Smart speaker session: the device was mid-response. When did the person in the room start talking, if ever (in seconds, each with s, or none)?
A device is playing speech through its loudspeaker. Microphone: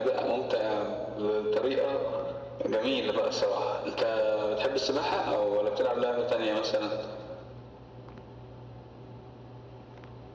none